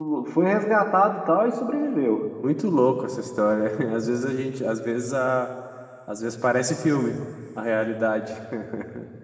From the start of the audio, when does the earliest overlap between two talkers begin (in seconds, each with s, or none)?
none